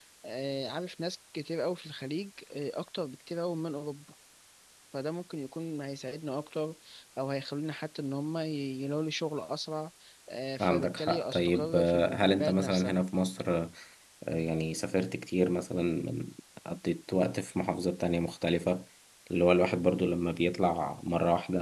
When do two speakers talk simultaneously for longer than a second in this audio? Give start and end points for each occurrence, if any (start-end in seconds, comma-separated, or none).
10.6-13.0